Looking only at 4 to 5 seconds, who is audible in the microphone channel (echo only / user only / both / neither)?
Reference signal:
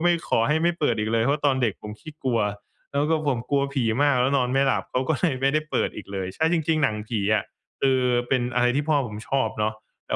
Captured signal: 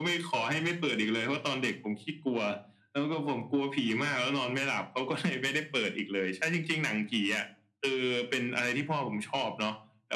echo only